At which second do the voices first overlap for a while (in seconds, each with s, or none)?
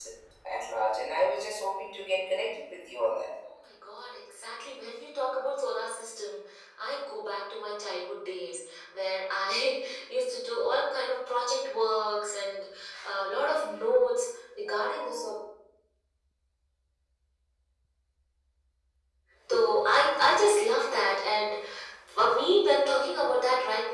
none